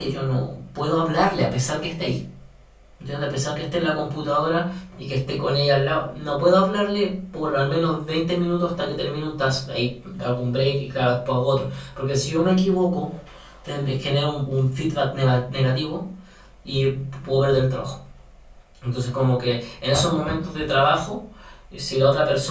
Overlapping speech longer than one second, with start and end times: none

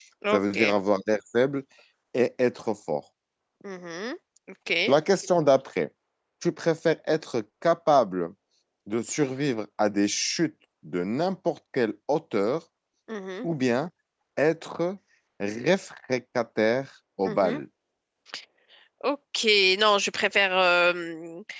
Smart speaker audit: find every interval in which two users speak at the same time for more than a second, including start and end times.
none

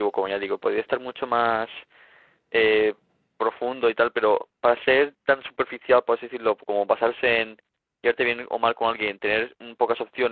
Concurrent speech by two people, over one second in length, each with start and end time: none

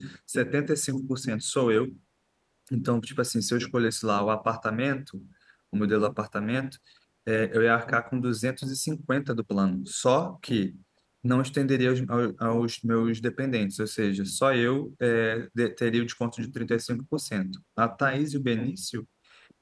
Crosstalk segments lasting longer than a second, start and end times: none

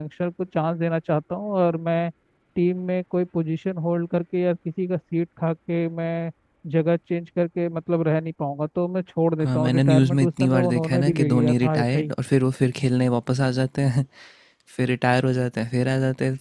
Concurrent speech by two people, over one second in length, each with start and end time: 9.4-12.1

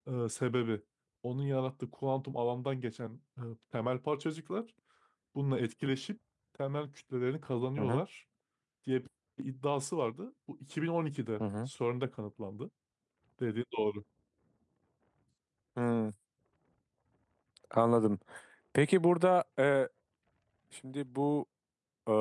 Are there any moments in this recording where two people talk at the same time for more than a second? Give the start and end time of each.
none

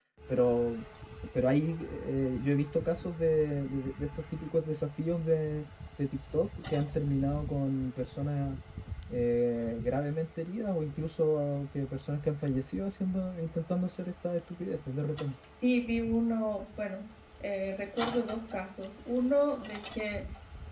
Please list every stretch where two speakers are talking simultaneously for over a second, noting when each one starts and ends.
none

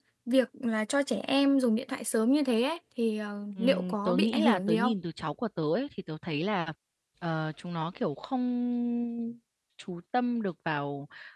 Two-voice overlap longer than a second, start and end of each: 3.6-4.9

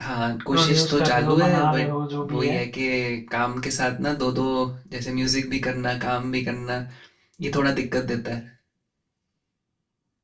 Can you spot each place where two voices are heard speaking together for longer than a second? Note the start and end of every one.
0.5-1.9

